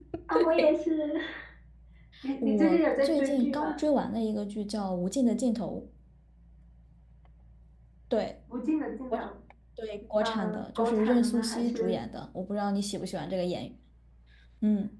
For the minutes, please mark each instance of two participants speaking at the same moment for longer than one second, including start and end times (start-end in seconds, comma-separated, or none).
2.4-3.8, 10.2-12.0